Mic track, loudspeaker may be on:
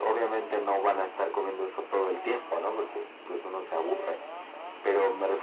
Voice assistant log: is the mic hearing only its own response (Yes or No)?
Yes